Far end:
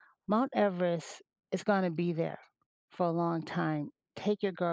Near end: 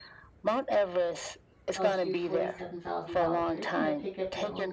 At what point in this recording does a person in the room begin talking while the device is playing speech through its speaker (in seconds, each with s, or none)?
1.7 s